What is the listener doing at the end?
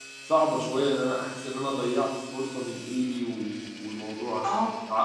listening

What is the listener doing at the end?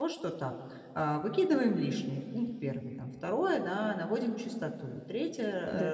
listening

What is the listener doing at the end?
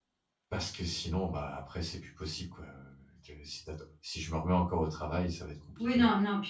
taking over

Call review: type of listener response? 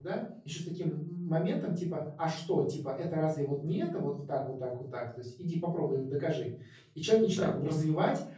listening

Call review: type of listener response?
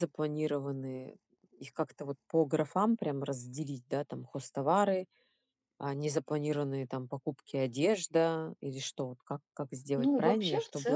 taking over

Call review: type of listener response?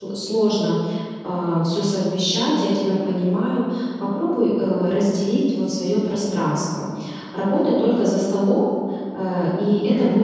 listening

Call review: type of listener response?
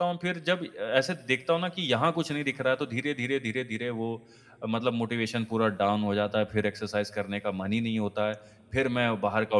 listening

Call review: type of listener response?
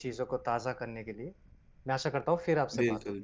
taking over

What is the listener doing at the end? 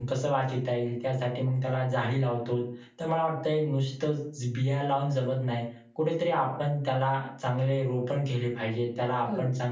listening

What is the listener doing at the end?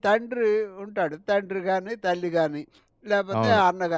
listening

